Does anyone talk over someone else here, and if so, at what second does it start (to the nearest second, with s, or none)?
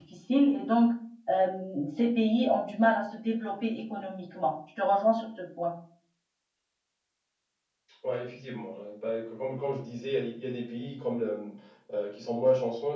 none